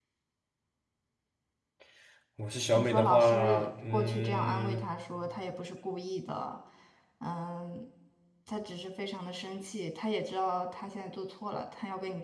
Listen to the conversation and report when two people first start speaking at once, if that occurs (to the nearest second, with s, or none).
3 s